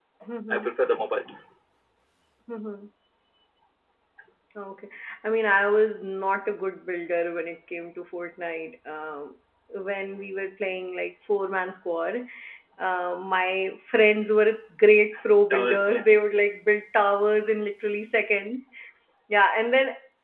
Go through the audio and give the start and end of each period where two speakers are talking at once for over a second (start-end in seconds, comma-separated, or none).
none